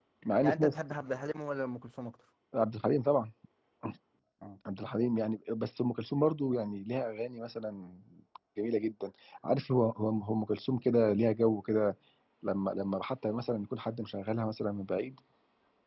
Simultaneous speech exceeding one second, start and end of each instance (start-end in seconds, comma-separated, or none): none